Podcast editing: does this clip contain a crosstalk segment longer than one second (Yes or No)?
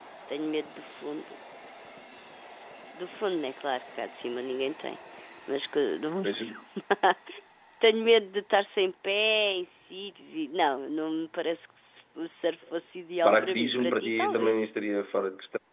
Yes